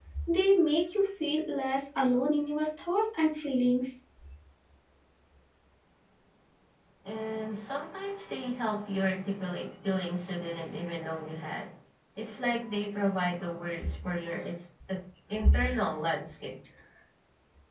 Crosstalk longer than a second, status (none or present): none